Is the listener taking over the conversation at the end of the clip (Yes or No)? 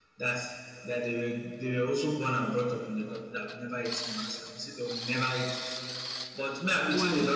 No